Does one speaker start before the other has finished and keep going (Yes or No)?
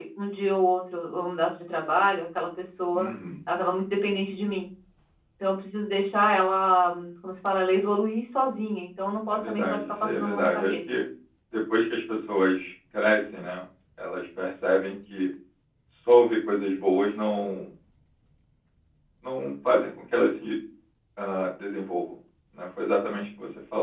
Yes